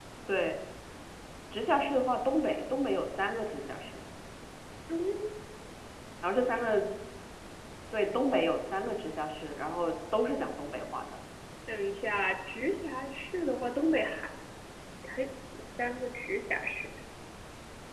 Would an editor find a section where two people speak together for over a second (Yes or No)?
No